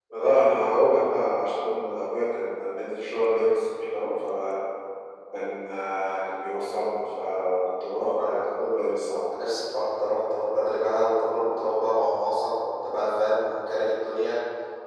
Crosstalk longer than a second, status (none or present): none